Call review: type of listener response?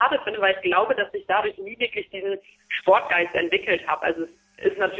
listening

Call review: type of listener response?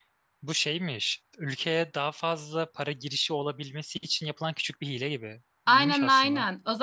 taking over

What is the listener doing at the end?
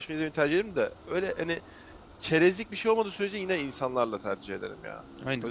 taking over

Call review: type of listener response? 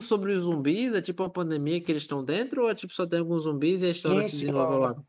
taking over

